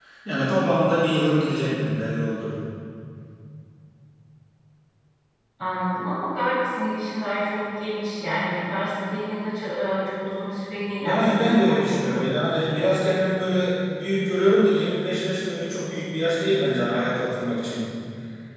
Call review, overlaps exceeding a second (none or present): present